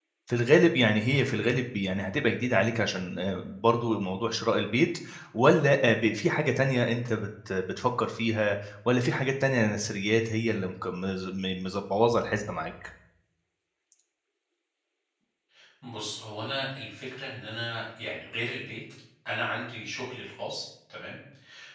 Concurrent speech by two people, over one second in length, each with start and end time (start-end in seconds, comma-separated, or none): none